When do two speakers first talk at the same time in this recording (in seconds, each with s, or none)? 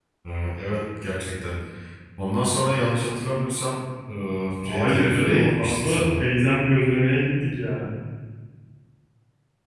4.6 s